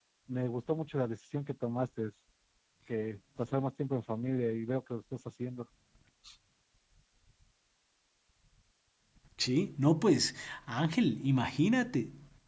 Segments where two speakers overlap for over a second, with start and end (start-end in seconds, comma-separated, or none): none